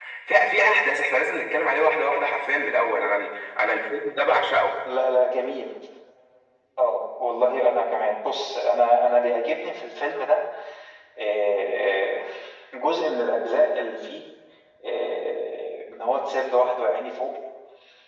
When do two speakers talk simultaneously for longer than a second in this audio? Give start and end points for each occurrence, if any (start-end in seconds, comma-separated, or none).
none